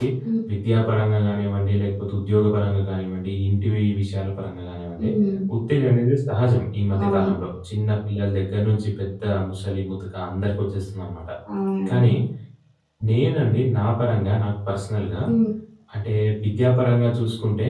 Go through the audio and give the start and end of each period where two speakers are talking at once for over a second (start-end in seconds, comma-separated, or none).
none